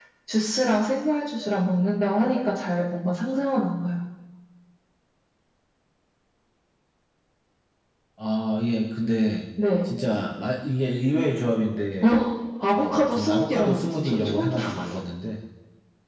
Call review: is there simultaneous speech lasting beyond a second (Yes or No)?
Yes